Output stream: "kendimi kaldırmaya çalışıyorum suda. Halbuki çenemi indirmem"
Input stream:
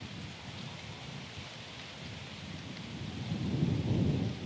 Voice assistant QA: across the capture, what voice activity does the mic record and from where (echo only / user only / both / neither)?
neither